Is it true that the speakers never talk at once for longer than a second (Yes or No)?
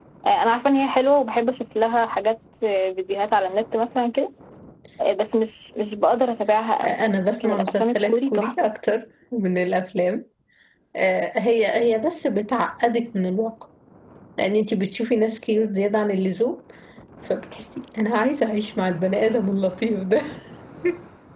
No